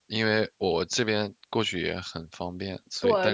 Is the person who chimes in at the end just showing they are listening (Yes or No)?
No